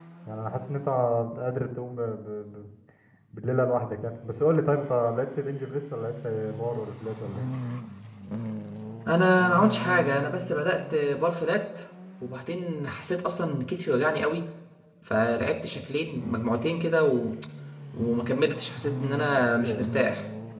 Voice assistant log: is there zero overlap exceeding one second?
Yes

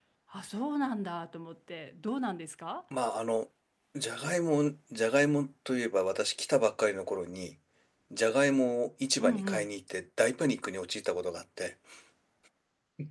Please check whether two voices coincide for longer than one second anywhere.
No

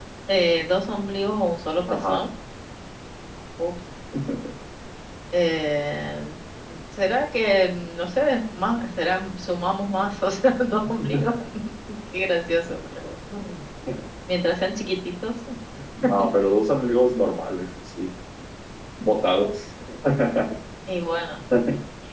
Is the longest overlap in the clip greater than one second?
No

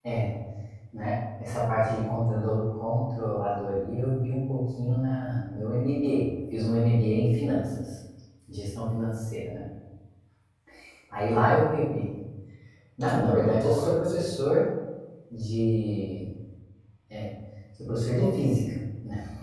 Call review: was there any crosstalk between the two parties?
Yes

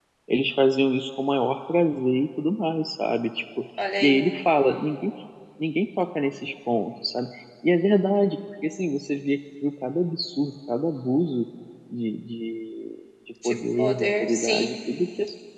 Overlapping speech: Yes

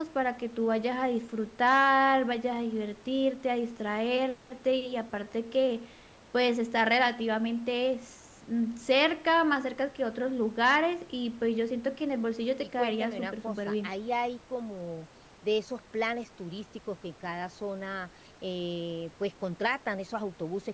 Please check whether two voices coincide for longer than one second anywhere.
Yes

